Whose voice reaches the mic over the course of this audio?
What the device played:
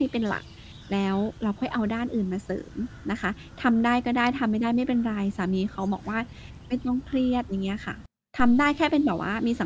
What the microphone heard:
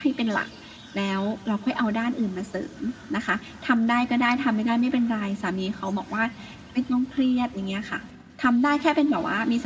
echo only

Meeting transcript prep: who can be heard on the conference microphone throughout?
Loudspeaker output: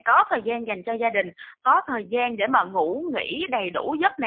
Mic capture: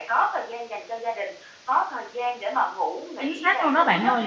both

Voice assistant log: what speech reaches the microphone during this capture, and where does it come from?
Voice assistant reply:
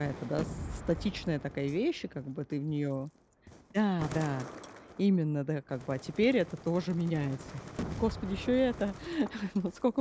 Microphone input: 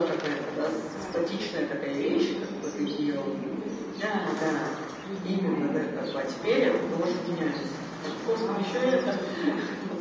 both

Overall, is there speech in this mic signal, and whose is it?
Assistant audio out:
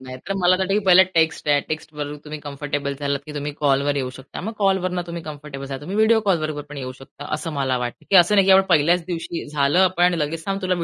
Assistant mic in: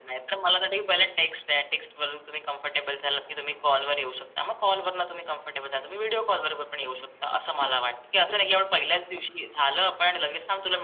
echo only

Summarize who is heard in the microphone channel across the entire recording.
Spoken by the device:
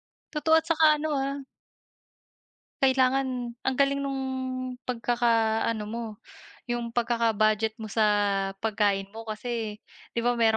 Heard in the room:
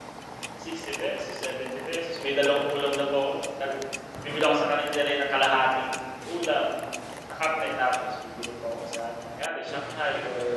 user only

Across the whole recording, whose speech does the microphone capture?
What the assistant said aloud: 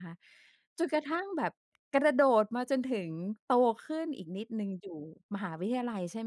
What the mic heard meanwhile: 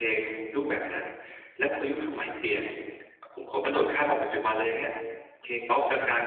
user only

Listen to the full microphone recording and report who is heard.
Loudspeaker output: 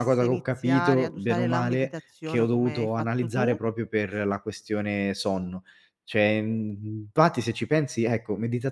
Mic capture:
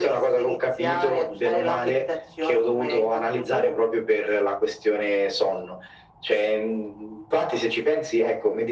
echo only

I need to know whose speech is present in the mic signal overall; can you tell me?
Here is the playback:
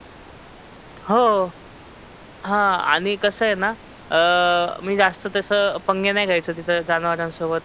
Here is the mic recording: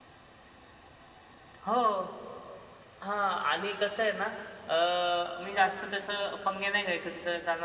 echo only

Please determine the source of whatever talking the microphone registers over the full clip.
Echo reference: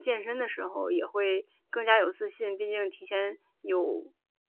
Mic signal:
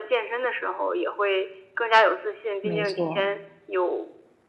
both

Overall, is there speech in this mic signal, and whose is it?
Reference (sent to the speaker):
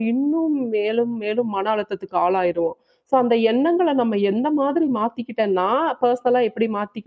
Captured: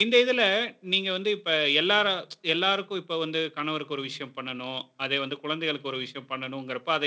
user only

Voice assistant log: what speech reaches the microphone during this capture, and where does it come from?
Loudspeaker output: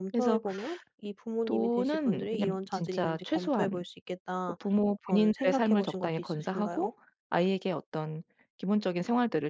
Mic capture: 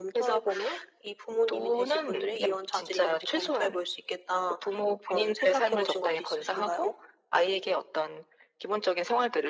echo only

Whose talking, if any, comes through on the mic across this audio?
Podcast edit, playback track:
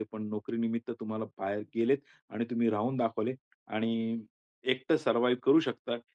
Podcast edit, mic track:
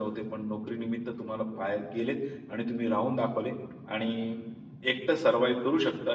echo only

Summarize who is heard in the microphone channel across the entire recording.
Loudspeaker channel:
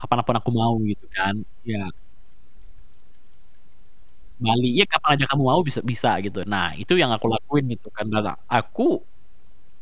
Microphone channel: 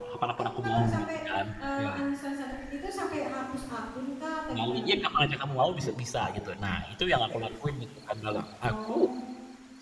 both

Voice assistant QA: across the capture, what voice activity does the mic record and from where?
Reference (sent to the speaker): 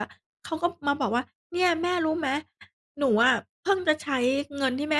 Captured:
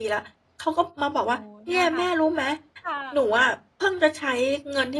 both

